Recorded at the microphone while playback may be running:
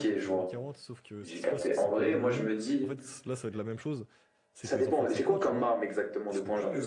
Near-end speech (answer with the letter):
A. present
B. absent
A